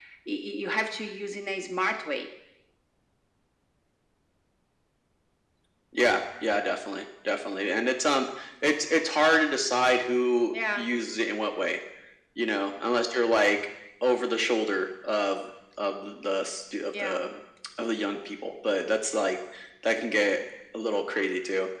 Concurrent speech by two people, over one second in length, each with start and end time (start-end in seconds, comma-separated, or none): none